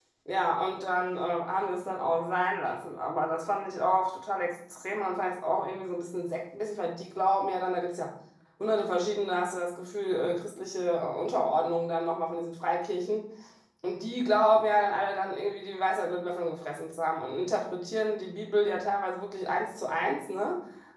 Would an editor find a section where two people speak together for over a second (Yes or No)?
No